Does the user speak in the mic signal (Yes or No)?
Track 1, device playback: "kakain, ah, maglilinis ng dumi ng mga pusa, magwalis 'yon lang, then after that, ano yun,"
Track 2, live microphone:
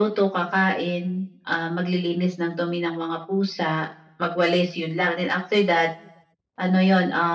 No